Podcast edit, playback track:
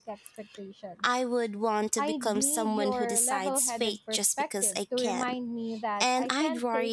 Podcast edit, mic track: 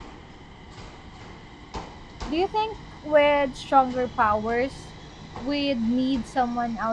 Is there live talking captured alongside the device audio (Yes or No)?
Yes